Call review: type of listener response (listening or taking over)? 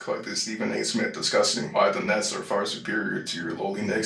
taking over